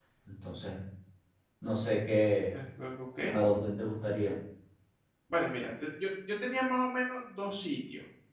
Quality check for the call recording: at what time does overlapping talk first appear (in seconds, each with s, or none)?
none